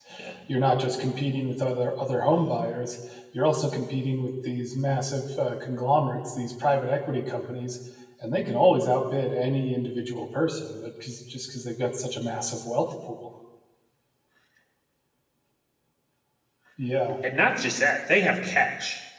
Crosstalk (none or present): none